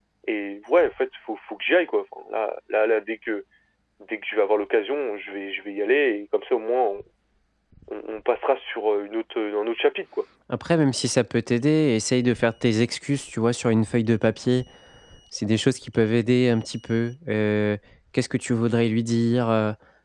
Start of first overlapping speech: none

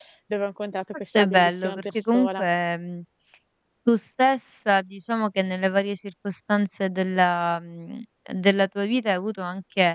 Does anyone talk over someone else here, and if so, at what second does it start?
1 s

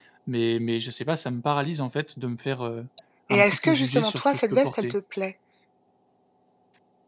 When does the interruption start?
3 s

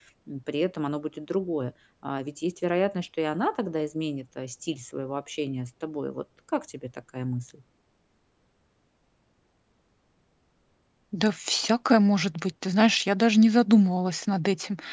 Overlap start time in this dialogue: none

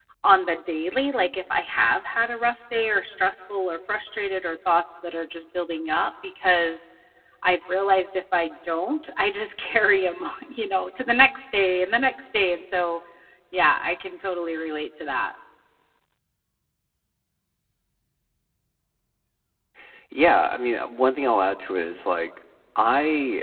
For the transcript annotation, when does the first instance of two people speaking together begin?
none

